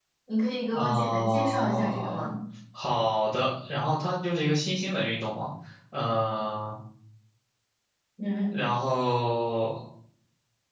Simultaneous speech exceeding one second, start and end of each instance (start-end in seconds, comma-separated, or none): 0.7-2.3